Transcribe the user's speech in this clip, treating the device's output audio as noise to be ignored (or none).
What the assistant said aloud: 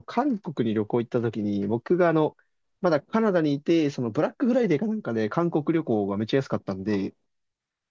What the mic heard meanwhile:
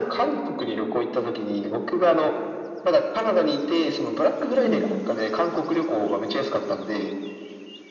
うんうん。